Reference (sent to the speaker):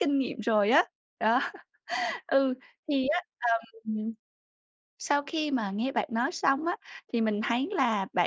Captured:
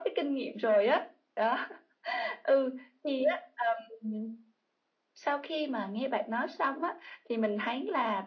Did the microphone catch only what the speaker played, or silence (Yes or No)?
Yes